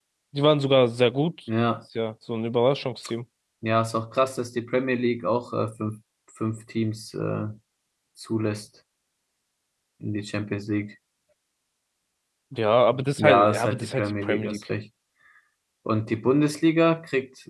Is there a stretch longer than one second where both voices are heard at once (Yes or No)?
Yes